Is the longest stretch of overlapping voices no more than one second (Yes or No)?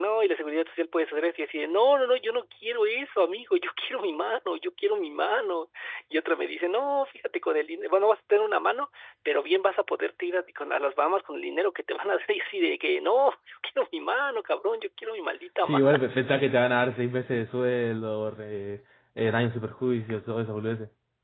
Yes